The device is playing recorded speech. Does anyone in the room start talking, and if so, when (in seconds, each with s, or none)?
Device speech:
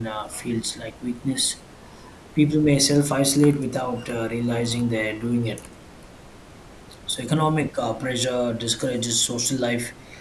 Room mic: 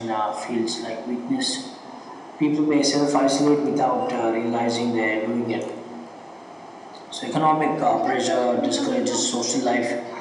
7.9 s